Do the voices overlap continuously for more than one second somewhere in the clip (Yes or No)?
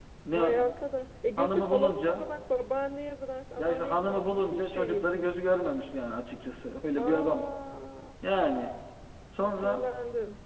Yes